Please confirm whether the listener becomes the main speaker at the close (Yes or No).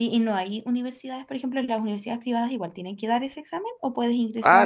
Yes